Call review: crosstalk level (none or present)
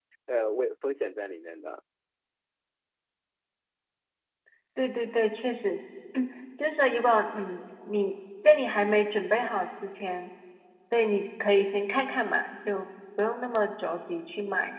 none